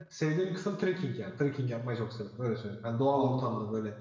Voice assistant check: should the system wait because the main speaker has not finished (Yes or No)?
No